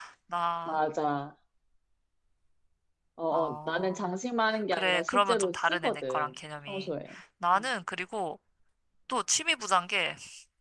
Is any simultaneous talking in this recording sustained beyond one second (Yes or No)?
Yes